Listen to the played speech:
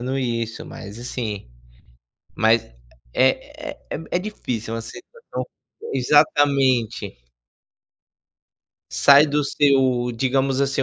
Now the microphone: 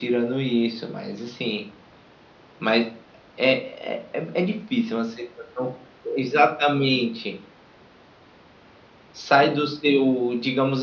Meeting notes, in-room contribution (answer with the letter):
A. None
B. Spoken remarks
A